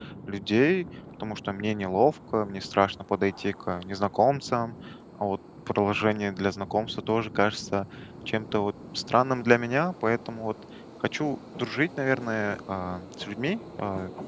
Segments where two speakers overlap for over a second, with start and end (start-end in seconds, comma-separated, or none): none